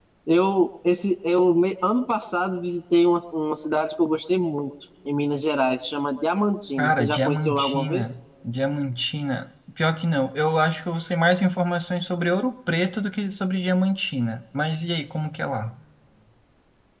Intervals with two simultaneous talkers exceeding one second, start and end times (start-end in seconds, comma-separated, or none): 6.8-8.0